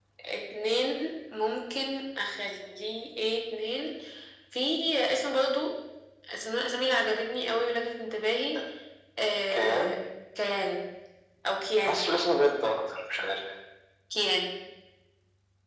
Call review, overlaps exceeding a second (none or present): none